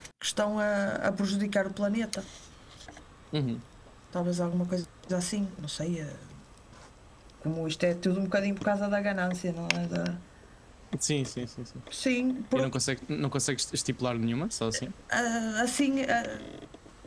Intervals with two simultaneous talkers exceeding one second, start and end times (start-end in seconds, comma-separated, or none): none